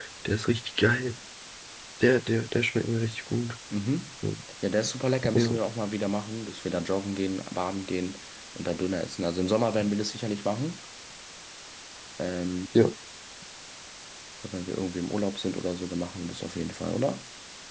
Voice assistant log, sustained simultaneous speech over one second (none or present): none